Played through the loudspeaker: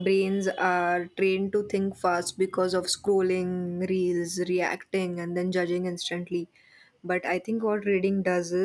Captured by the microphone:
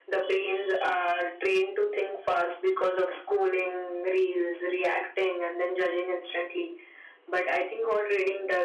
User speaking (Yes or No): No